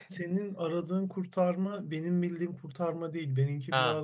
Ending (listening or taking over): listening